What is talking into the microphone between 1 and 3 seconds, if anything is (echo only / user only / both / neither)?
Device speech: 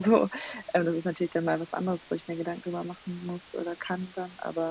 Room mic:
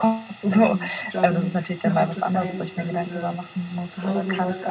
both